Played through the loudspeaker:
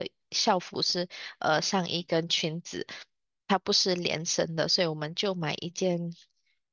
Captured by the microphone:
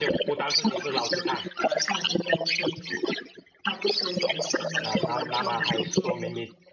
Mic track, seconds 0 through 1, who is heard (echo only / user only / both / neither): both